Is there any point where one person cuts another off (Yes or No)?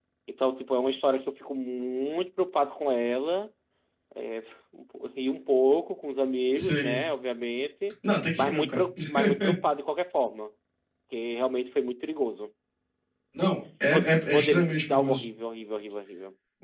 Yes